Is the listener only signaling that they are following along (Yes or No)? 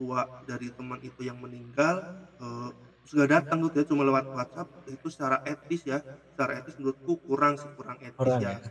No